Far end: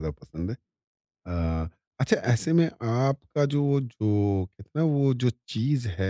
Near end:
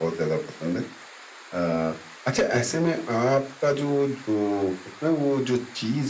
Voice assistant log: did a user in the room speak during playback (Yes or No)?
No